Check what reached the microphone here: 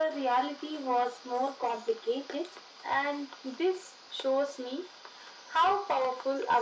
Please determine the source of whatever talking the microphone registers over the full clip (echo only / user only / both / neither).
echo only